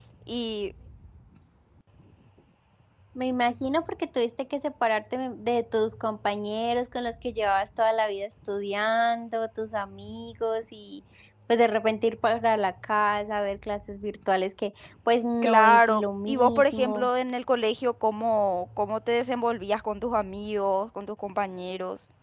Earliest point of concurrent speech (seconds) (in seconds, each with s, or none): 15.4 s